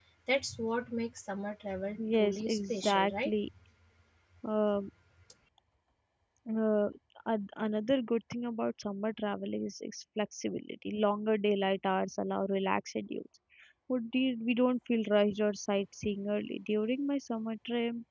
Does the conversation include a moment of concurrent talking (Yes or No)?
Yes